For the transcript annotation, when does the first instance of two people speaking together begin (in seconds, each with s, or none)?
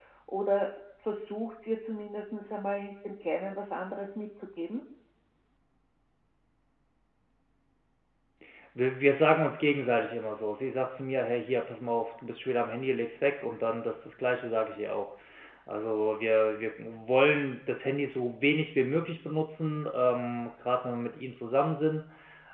none